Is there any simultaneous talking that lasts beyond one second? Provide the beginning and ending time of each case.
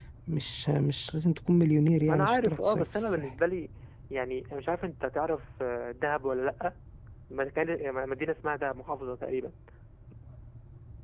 2.1-3.3

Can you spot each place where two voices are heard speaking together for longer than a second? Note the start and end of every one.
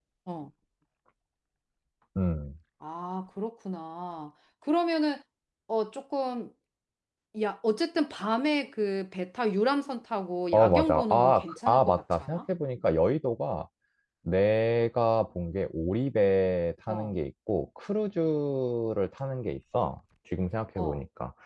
10.5-12.4

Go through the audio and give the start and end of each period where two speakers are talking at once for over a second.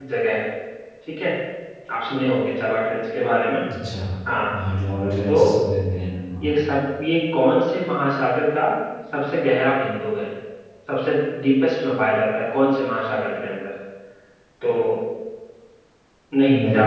none

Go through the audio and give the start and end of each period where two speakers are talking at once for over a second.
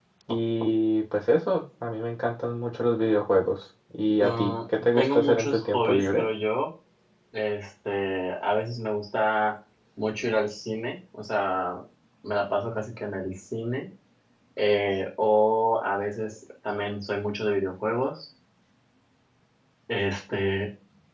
4.2-6.2

